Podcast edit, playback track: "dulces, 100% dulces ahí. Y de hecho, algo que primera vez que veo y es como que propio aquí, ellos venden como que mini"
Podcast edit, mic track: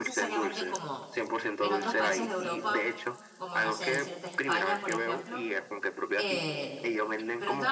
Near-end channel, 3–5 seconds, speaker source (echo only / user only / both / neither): both